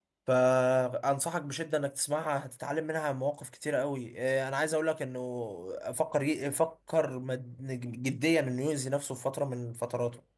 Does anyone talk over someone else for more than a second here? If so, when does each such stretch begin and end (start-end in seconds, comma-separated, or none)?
none